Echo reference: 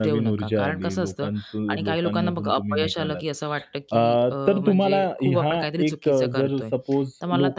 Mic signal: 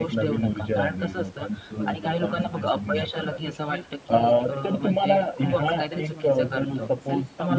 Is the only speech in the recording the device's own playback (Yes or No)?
No